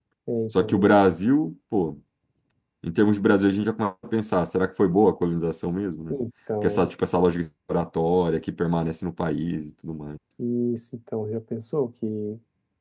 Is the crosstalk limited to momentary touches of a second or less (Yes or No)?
Yes